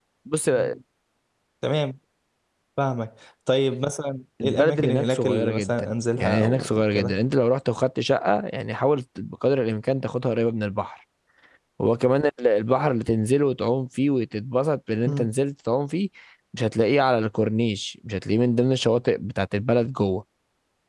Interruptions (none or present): present